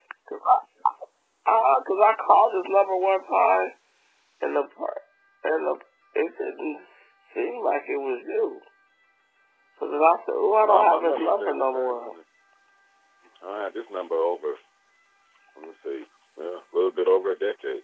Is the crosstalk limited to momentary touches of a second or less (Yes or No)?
No